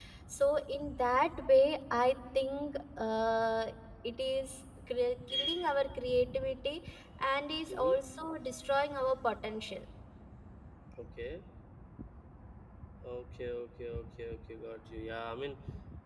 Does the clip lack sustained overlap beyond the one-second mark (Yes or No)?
Yes